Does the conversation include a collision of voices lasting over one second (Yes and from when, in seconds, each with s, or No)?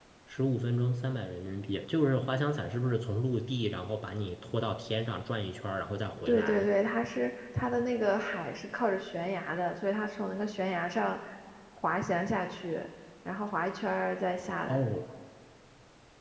No